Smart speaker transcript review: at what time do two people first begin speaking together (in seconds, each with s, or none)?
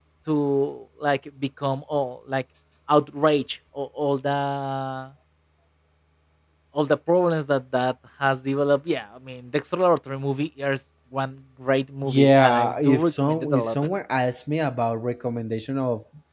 12.0 s